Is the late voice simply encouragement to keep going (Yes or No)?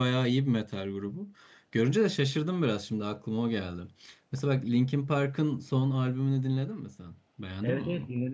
No